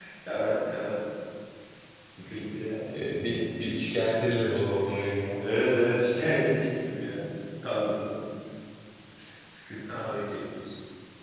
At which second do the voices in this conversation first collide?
none

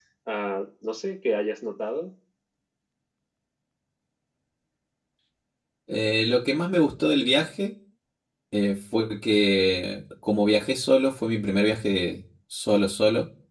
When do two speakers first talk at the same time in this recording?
none

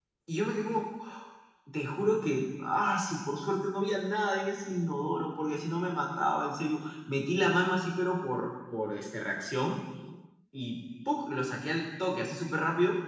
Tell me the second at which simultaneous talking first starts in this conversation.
none

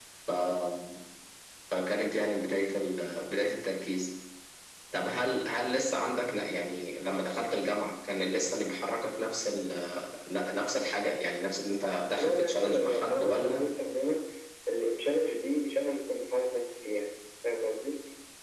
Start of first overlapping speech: 12.2 s

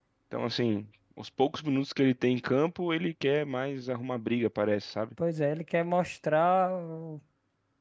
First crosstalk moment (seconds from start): none

